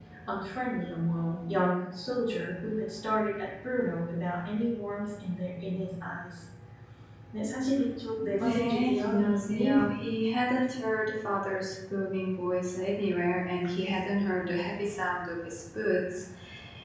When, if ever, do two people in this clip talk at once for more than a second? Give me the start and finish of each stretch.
8.4-9.8

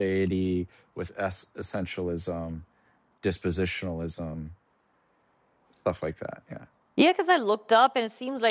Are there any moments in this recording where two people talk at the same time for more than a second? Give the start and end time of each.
none

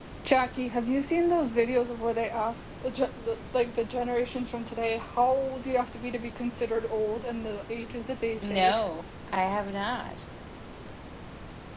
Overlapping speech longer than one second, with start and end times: none

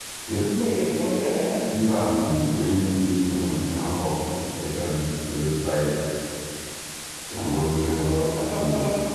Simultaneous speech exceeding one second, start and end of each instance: none

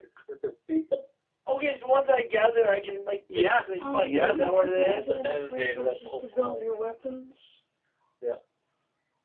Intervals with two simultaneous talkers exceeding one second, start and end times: 3.3-6.6

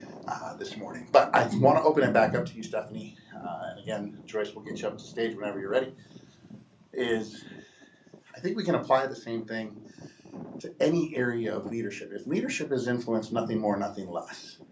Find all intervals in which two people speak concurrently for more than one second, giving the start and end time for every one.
none

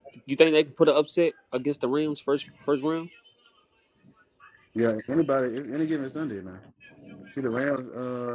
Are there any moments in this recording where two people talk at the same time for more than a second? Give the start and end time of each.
none

